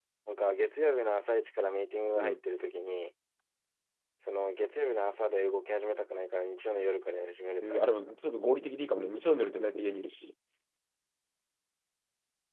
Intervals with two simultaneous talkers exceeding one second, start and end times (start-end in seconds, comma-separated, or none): none